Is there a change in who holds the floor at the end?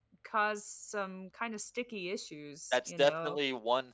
Yes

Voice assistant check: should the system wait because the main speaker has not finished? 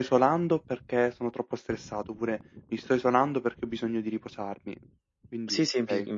No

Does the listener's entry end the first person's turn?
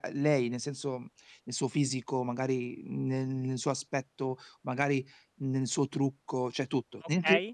Yes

